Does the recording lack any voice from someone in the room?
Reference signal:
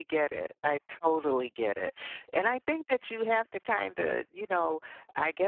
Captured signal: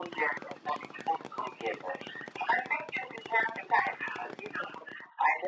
Yes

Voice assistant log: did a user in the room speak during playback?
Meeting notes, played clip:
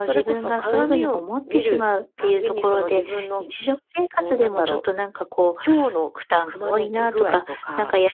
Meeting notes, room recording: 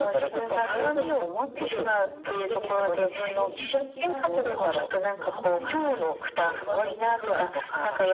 Yes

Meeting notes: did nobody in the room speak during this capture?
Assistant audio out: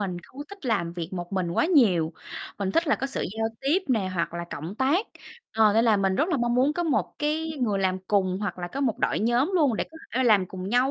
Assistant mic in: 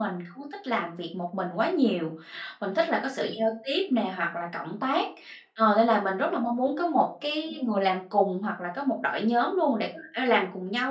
Yes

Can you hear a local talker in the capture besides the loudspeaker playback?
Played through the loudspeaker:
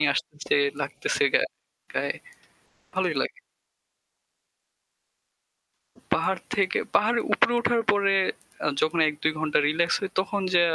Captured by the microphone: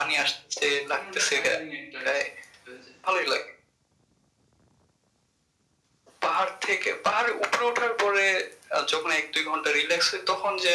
Yes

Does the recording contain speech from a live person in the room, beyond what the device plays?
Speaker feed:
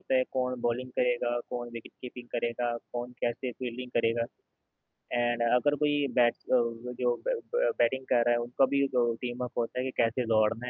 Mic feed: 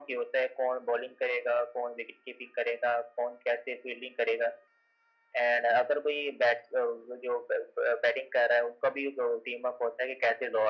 No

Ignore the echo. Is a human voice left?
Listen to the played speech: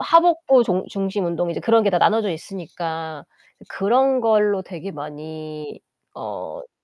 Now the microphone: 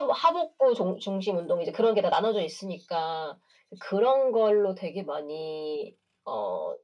No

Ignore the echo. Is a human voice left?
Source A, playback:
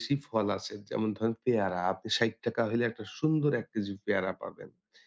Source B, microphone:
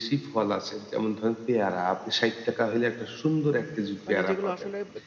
Yes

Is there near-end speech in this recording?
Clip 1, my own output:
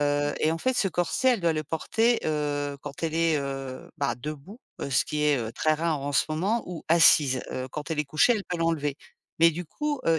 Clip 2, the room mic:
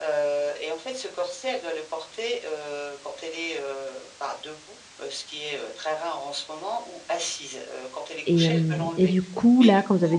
Yes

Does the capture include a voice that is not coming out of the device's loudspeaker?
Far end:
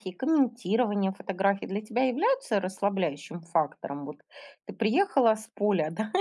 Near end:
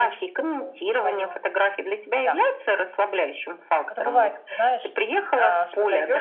Yes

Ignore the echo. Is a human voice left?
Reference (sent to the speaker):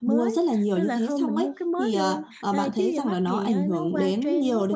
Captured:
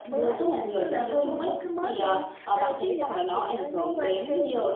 No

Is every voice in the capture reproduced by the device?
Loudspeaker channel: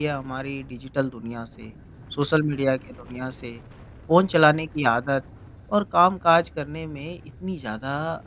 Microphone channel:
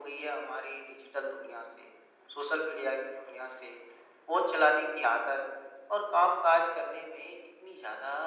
Yes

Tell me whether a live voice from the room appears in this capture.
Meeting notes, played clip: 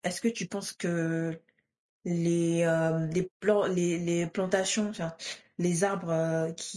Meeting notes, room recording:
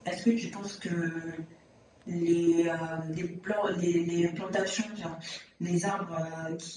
No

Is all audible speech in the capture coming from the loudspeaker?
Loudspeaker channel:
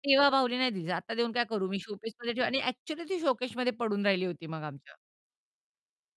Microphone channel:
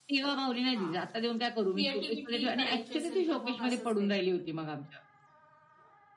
No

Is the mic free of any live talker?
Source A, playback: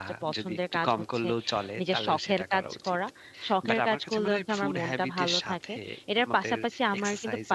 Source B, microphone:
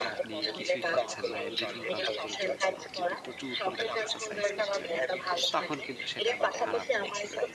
No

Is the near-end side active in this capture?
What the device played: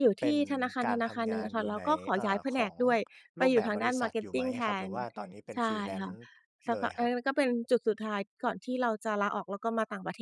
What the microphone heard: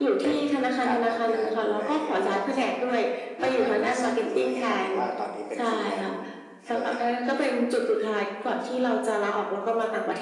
No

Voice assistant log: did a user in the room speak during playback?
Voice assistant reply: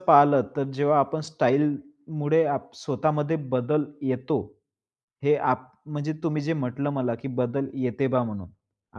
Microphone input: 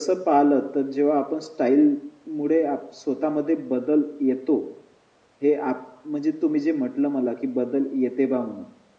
No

